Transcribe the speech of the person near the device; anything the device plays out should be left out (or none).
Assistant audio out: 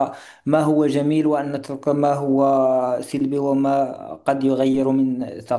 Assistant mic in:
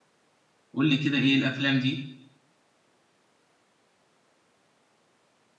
قول لي كده إيه الأفلام دي